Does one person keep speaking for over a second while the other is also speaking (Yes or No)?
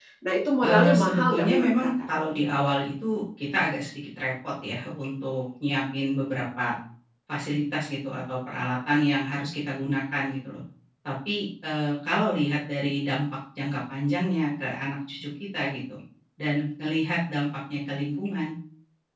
Yes